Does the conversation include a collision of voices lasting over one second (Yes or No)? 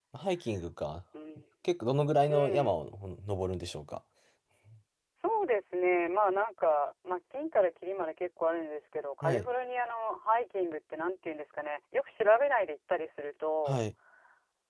No